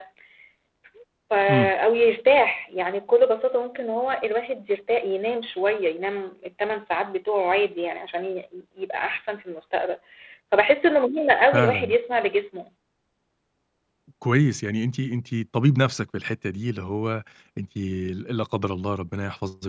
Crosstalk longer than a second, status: none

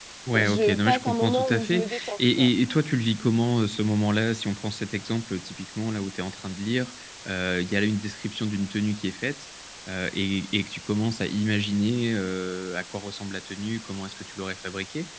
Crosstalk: present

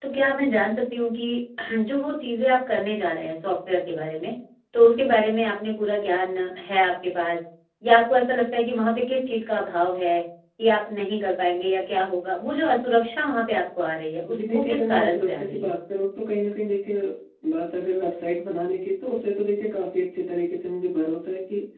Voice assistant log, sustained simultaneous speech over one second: present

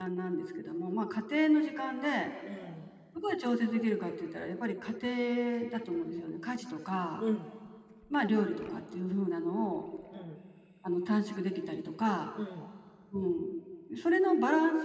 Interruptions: none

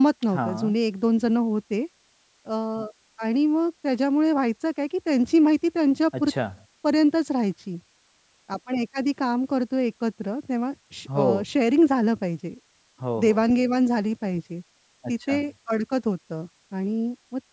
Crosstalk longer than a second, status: none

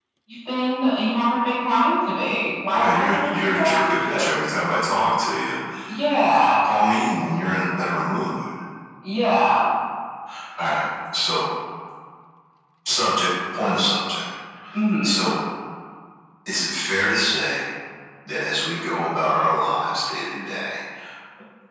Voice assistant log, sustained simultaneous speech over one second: present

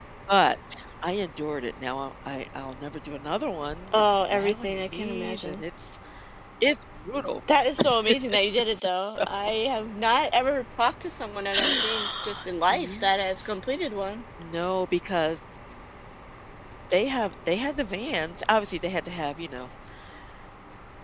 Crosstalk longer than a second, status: present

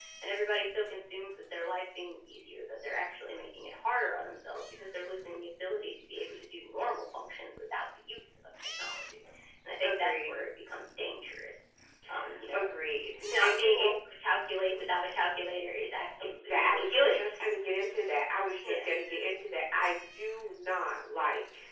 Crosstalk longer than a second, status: present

